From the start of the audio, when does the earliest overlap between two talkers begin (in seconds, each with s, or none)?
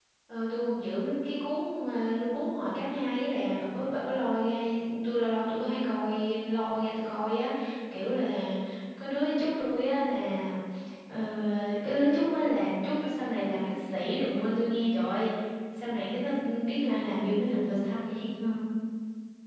none